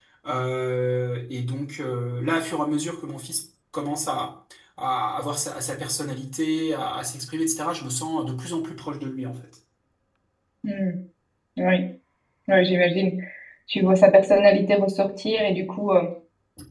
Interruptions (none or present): none